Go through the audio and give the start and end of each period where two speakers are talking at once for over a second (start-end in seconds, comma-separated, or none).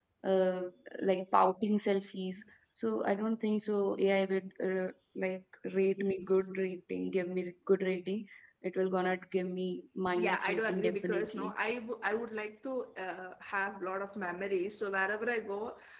10.2-11.5